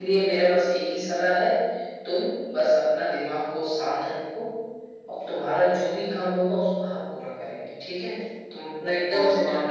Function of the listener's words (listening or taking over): taking over